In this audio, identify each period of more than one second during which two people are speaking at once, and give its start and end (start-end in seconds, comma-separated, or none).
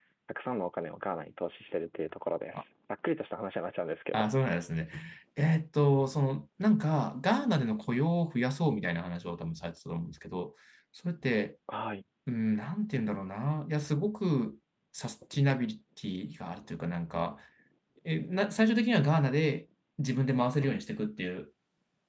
none